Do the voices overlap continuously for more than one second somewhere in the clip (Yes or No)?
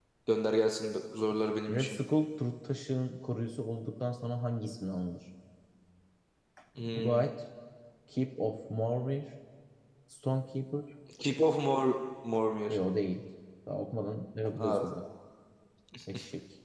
No